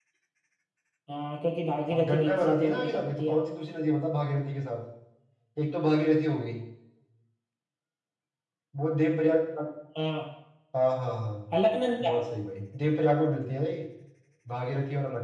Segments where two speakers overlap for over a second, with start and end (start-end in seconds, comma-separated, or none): 1.9-3.4